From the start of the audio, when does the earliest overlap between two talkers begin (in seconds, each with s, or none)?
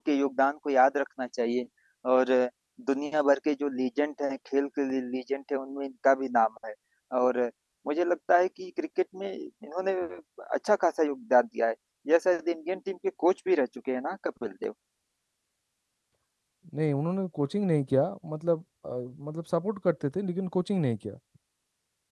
none